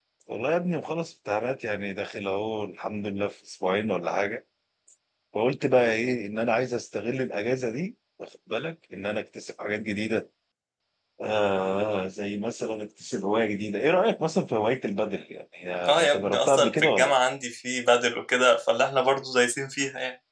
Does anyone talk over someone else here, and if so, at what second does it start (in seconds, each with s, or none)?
15.8 s